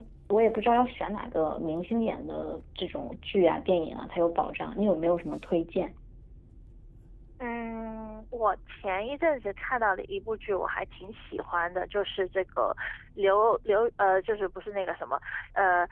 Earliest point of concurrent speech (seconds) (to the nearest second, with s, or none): none